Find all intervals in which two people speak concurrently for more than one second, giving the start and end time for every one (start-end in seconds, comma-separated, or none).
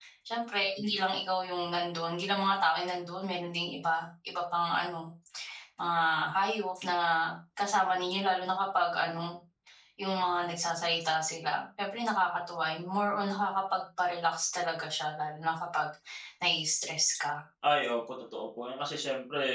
none